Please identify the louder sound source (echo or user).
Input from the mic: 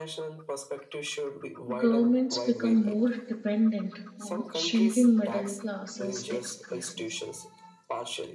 user